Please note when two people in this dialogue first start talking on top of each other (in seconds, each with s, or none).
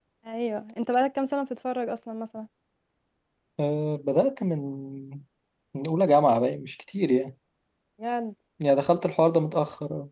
none